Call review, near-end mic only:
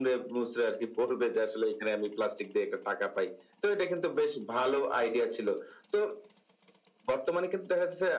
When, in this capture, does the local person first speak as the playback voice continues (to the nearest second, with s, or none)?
none